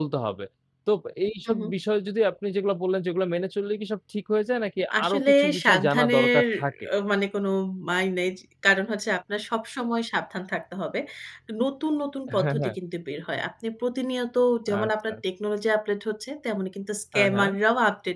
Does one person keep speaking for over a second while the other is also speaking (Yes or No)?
Yes